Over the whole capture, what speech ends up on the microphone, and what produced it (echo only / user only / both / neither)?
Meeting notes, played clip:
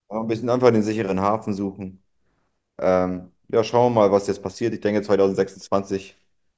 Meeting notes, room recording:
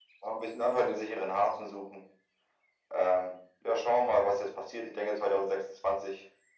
echo only